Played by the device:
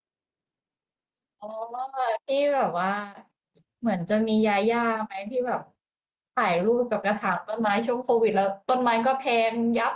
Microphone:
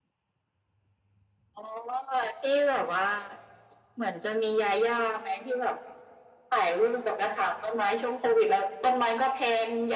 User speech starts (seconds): none

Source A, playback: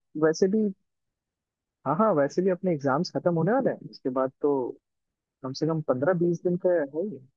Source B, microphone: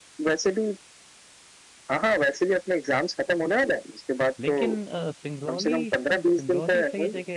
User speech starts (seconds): 4.4 s

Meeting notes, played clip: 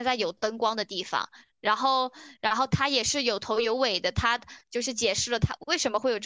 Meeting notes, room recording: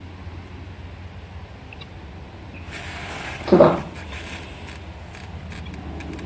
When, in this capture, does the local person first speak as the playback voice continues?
3.4 s

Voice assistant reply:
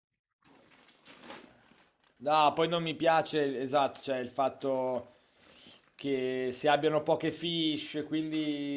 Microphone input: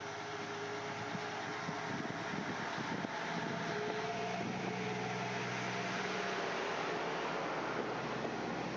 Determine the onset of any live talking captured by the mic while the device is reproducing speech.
none

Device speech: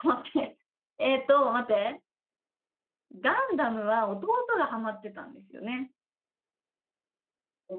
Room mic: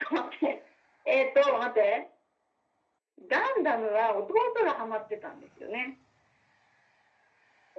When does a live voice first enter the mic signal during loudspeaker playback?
none

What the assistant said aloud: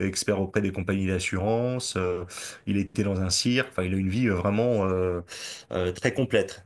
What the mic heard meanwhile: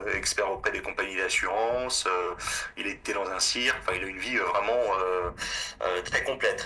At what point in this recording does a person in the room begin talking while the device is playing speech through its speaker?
none

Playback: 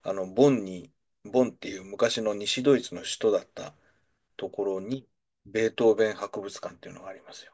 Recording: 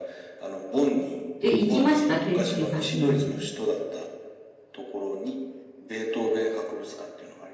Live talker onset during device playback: 1.4 s

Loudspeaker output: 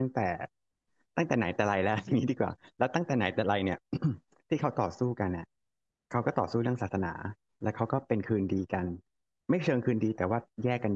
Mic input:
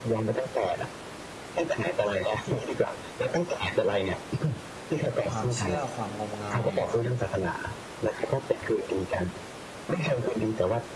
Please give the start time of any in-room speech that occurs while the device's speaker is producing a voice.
5.2 s

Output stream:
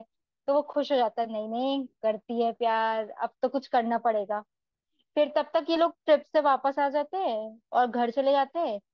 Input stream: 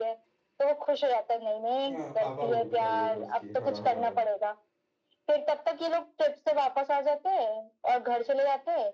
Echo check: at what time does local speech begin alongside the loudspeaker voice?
1.9 s

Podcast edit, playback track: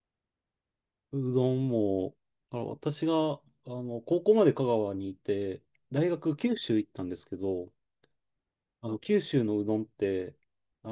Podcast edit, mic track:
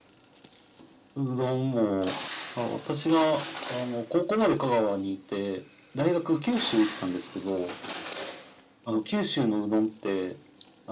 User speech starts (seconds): none

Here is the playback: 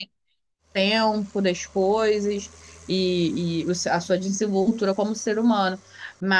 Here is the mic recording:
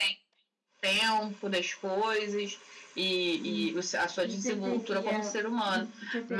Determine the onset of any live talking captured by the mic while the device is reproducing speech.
3.4 s

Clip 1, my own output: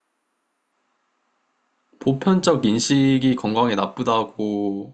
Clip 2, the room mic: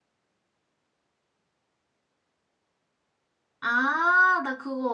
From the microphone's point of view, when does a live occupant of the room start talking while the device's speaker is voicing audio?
3.6 s

